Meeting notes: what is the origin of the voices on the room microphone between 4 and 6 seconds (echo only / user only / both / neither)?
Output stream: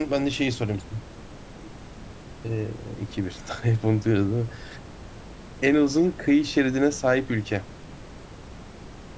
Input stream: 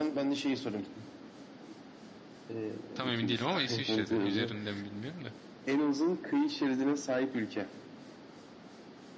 both